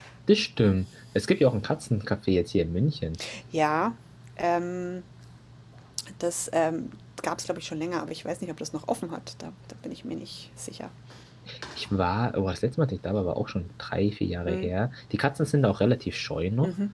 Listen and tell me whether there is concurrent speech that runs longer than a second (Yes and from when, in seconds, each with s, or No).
No